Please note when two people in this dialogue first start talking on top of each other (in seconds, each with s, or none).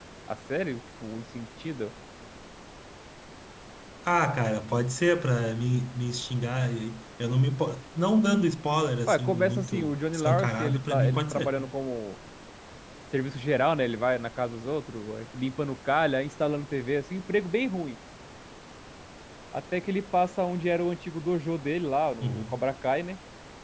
9.1 s